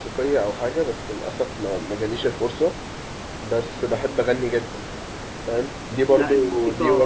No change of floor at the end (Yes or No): Yes